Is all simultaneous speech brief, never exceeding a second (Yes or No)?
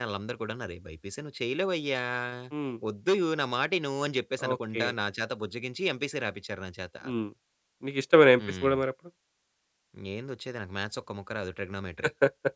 Yes